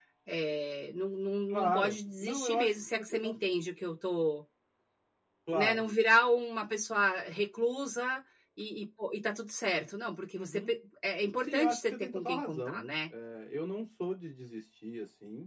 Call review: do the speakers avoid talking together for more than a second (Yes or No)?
No